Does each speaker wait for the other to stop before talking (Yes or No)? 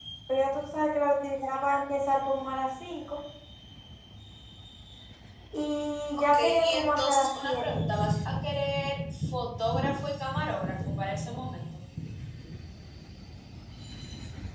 No